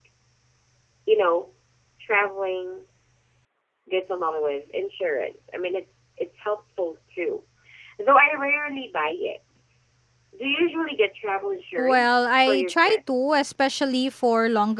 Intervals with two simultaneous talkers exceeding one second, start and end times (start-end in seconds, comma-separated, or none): 11.8-13.4